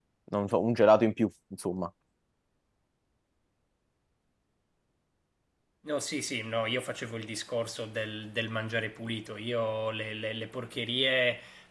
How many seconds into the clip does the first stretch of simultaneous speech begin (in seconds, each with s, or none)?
none